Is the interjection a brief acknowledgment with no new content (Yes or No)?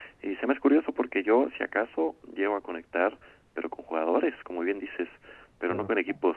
Yes